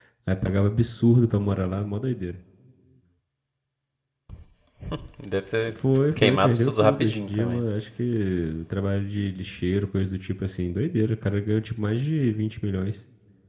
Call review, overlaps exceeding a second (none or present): present